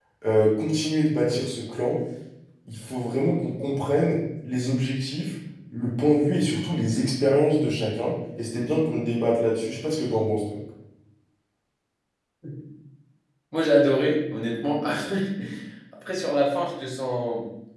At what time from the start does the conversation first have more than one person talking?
none

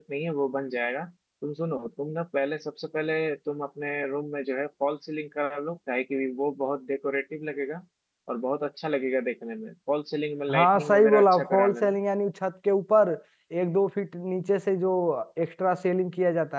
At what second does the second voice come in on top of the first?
10.5 s

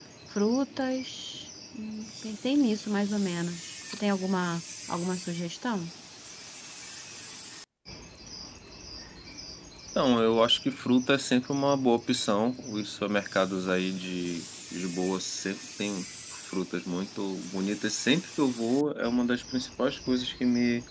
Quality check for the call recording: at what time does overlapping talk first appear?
none

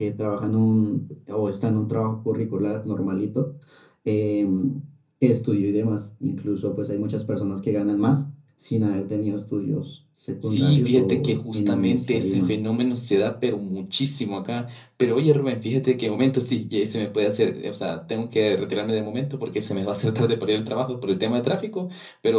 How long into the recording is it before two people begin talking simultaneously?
10.4 s

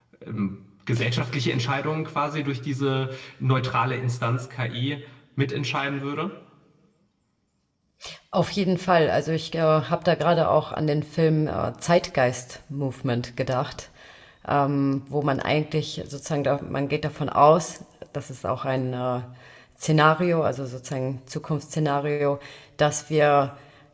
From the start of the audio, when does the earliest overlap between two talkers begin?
none

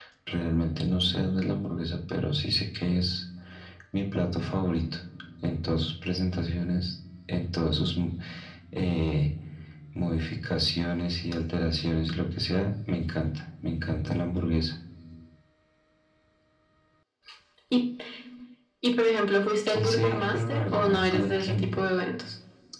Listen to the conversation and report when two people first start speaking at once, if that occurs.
19.7 s

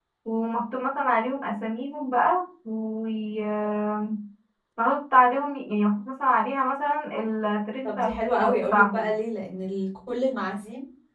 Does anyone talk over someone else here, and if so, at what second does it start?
7.8 s

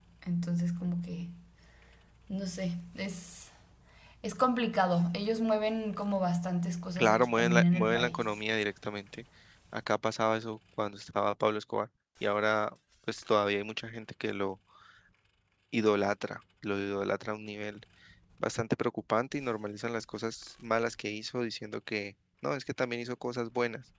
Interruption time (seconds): 7.0 s

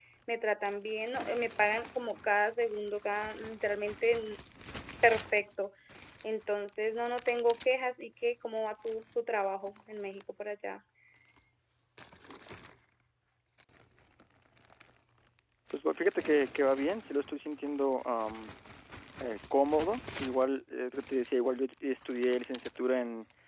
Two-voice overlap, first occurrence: none

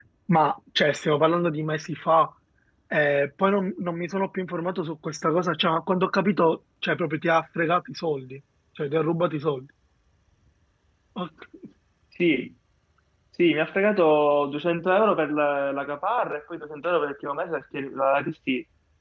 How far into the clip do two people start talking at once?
none

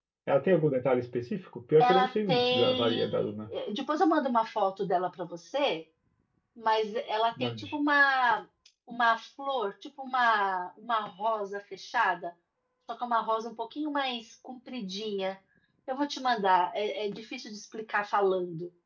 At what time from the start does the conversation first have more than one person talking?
1.8 s

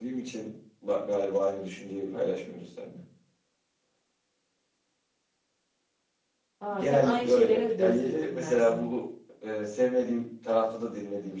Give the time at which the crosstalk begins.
6.8 s

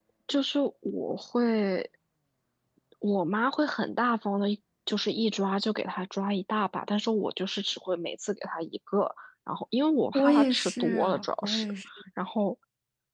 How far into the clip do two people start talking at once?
10.1 s

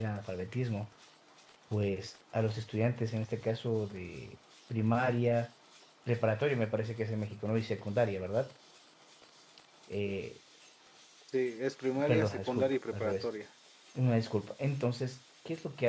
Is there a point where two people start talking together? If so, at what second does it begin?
12.0 s

